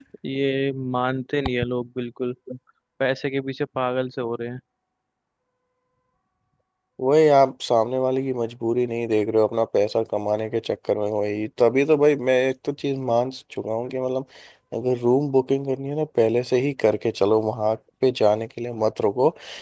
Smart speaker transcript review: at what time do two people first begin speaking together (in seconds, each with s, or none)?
none